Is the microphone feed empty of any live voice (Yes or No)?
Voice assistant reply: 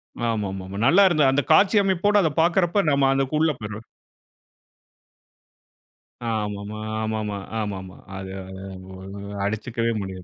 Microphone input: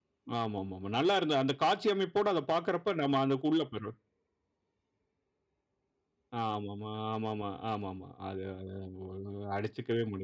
Yes